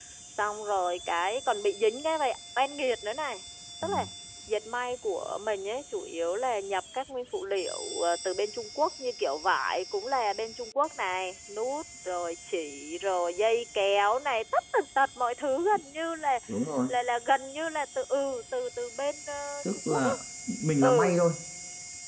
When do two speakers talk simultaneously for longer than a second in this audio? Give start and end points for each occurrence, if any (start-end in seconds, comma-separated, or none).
none